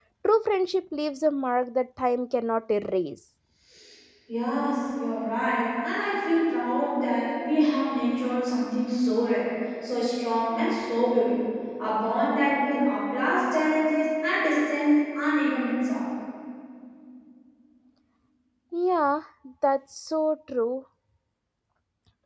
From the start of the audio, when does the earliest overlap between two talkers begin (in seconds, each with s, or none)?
none